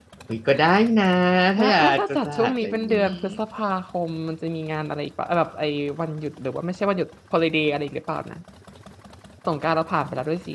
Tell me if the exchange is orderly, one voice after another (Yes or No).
No